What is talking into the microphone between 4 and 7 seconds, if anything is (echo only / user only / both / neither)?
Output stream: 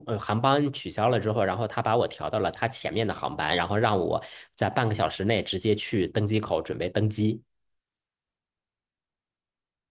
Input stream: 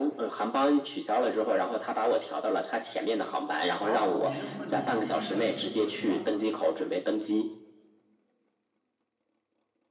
both